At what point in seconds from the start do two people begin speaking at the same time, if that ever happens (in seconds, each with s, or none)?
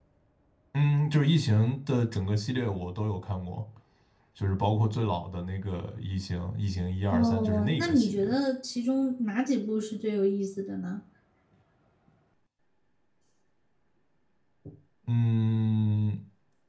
7.1 s